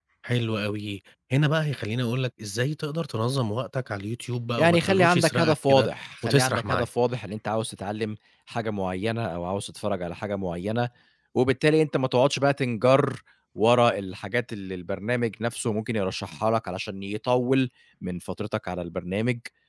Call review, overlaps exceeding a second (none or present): present